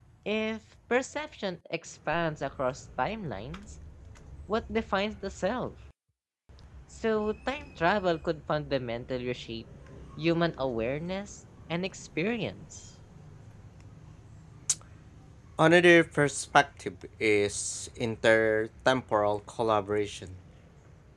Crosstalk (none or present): none